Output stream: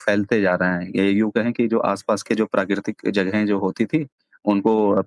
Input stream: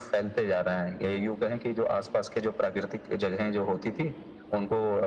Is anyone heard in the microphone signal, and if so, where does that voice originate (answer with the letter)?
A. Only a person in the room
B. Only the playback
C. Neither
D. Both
B